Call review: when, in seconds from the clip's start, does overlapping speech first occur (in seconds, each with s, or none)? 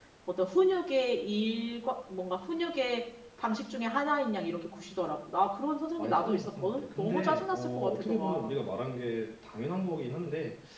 6.0 s